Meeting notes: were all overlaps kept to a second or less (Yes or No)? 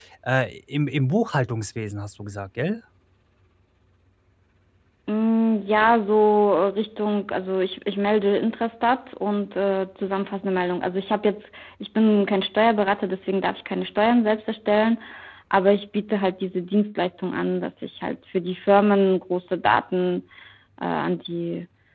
Yes